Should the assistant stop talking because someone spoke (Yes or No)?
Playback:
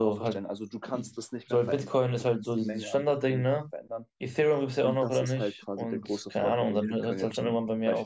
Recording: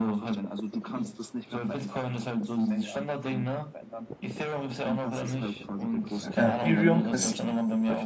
Yes